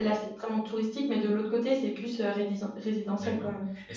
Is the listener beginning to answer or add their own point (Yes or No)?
Yes